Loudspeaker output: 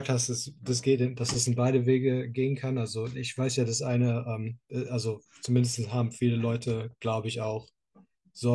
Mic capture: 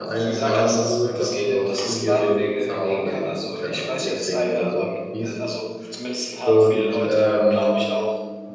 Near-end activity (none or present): present